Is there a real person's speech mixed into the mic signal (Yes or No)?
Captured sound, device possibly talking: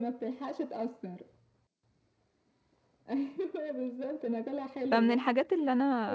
Yes